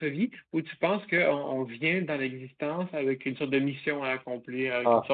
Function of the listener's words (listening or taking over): listening